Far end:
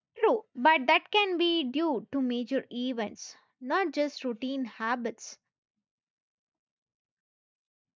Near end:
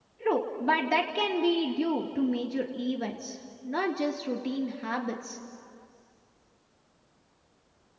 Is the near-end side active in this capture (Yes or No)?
No